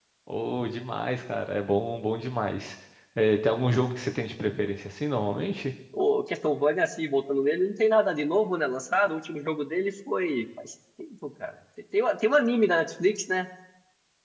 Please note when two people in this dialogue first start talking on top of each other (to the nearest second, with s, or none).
none